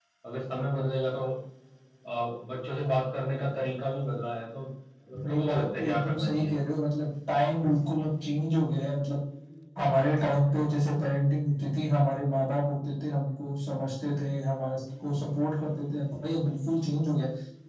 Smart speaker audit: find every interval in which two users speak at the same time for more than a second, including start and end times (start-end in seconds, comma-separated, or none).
5.2-6.5